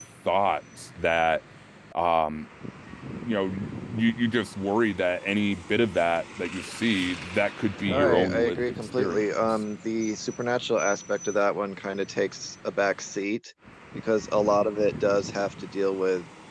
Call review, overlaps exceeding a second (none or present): present